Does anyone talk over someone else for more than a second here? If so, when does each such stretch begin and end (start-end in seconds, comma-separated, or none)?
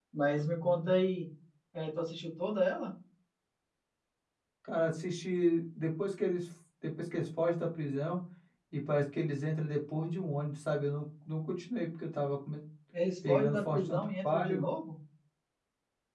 13.3-14.6